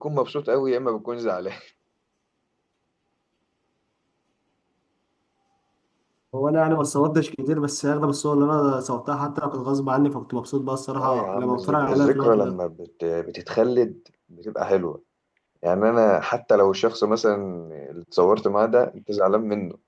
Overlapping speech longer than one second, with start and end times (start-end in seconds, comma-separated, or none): 11.0-12.6